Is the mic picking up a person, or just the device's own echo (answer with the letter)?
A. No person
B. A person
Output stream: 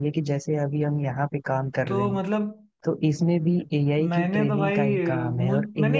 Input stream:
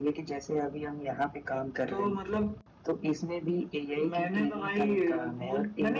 A